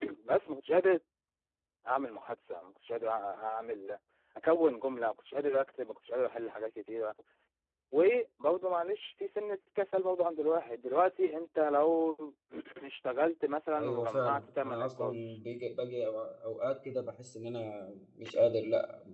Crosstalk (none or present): present